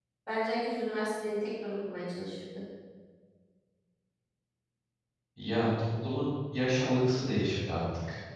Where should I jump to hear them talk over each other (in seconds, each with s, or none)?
none